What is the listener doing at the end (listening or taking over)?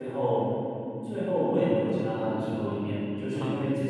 listening